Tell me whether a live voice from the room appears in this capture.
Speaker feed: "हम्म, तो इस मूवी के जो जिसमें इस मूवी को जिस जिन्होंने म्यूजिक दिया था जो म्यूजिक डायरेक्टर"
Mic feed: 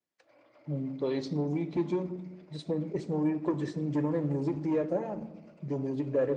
No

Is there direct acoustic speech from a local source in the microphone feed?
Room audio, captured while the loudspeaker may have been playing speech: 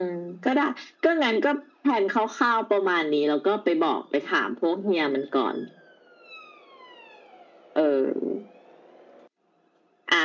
No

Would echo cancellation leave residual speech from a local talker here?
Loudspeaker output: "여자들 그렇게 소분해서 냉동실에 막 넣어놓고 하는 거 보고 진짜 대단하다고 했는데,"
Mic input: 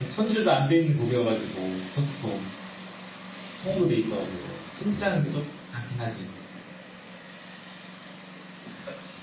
Yes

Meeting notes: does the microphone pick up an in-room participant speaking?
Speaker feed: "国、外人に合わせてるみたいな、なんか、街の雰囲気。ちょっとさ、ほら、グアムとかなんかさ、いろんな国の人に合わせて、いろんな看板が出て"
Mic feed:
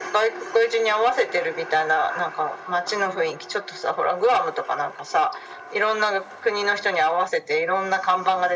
No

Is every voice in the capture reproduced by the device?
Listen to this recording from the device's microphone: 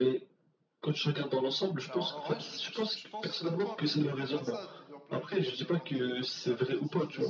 No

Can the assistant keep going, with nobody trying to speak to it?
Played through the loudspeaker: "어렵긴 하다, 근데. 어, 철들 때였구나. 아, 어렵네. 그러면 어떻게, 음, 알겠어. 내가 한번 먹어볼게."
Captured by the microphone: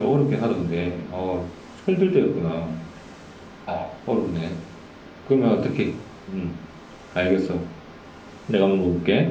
Yes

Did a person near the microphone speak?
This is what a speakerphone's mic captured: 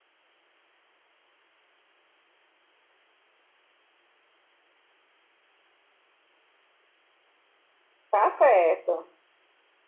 Yes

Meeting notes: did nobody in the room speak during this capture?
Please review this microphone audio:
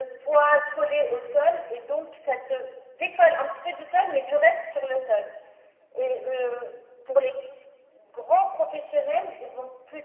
Yes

